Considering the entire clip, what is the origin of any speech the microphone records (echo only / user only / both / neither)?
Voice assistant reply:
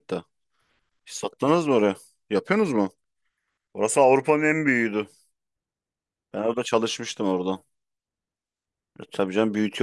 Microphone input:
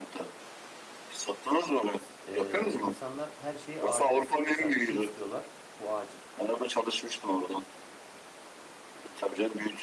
both